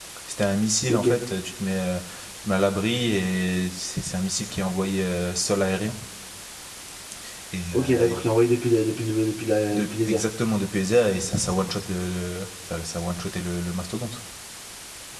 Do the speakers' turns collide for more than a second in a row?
No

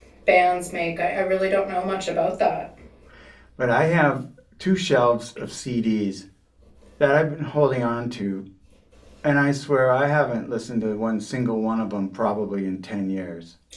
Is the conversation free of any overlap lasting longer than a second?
Yes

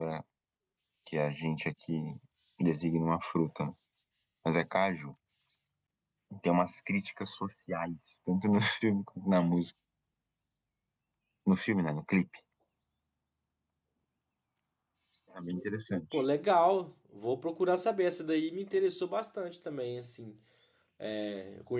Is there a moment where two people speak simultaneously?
No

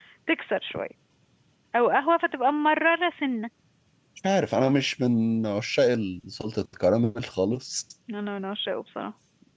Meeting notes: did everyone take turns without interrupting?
Yes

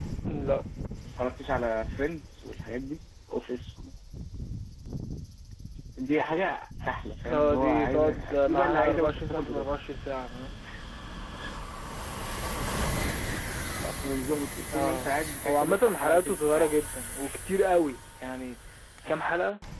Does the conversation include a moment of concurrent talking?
Yes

